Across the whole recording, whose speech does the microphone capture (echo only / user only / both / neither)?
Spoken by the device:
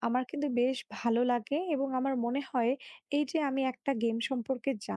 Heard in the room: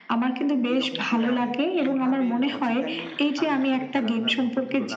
both